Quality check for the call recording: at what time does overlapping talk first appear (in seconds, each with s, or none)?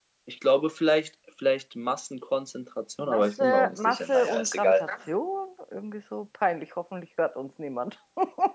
3.1 s